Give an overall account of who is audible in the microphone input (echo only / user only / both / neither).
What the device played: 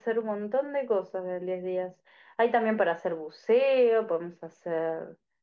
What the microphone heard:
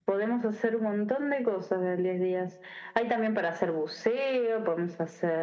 echo only